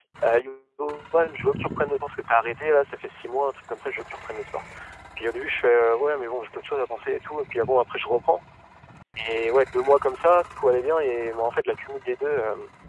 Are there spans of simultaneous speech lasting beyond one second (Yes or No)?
No